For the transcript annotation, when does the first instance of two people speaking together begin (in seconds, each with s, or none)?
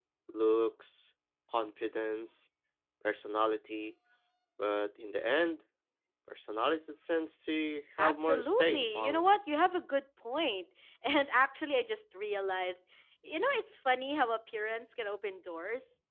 8.0 s